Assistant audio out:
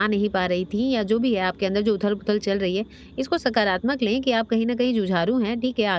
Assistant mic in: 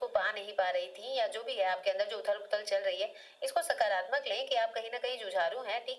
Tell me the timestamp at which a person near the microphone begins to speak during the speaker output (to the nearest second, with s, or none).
none